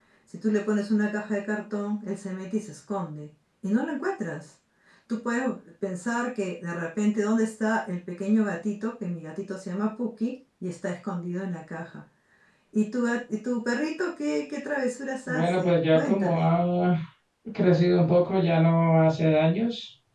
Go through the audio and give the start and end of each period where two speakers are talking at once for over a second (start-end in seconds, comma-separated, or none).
15.3-16.5